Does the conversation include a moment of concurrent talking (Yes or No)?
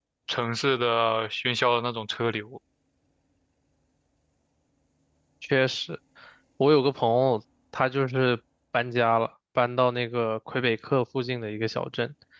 No